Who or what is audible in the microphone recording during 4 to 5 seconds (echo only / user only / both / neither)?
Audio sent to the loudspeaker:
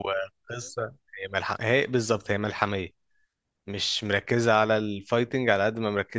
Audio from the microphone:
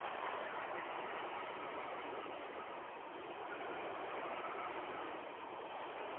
neither